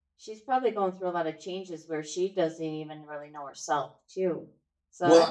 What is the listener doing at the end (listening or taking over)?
listening